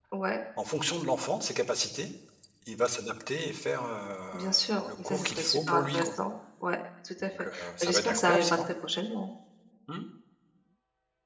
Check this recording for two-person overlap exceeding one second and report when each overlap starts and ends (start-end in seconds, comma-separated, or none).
4.3-6.1, 7.2-8.7